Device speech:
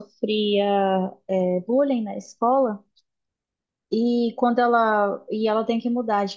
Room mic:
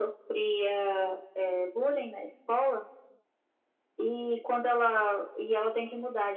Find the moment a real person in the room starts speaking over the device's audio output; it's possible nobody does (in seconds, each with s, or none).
none